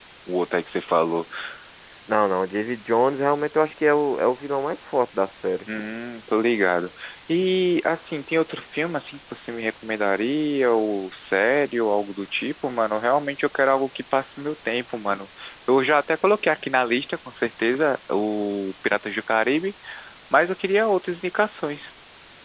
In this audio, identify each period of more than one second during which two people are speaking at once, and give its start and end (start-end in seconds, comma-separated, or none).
none